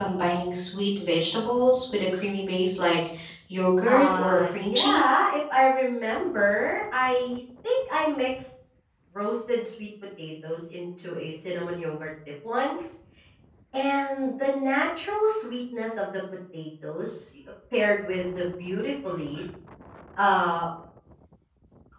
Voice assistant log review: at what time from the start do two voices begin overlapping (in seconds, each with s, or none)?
3.9 s